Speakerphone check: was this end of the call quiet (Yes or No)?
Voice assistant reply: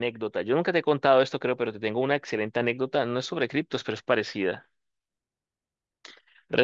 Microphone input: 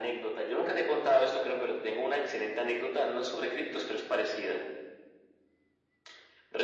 Yes